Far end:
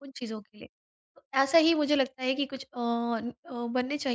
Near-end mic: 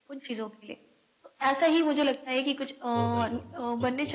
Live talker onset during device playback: 3.0 s

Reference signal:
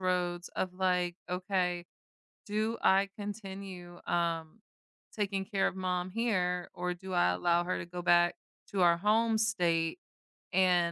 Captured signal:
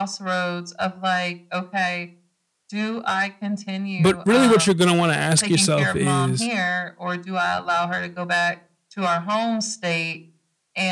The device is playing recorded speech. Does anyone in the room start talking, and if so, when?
4.0 s

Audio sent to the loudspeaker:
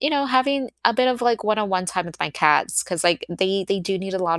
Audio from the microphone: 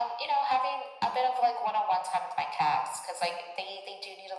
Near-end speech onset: none

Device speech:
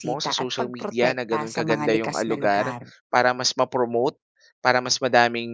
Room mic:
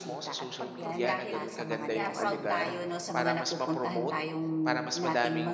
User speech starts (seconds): 0.6 s

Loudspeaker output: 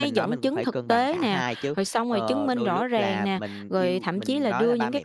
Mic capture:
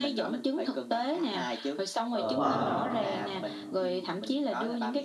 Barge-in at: 2.2 s

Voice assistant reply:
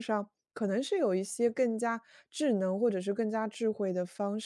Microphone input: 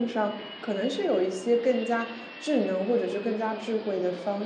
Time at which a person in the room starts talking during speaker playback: none

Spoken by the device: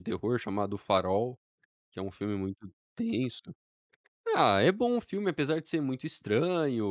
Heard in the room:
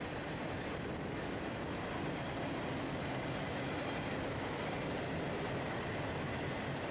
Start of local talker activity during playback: none

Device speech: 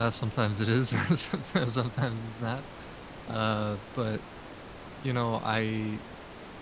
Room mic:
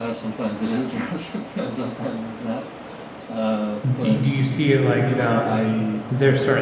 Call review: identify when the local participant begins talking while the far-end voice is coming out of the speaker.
3.8 s

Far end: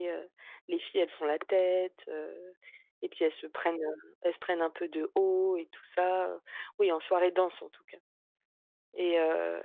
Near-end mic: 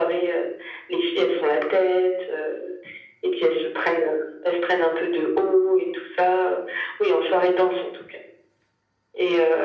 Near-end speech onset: none

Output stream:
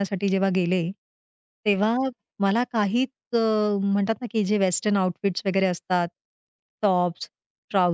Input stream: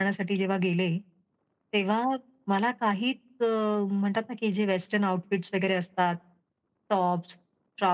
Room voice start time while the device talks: none

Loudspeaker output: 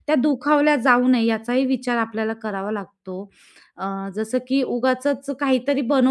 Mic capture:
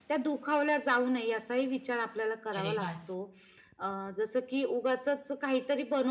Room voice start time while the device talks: 2.5 s

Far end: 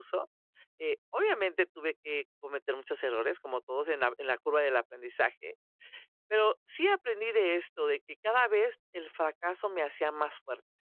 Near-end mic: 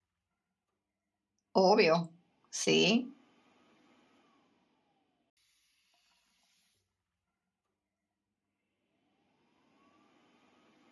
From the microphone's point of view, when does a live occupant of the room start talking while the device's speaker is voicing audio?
1.5 s

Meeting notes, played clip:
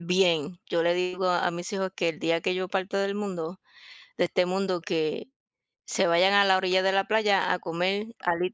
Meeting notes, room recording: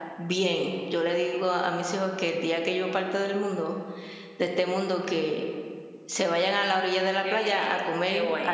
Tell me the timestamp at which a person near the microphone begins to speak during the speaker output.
7.2 s

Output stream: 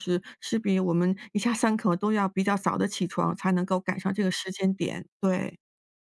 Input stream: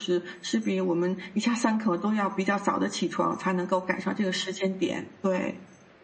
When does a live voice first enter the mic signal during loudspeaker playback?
none

